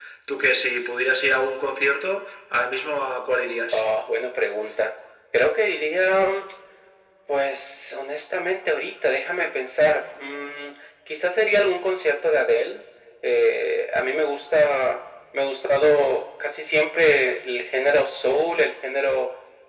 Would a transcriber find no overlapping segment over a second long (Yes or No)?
Yes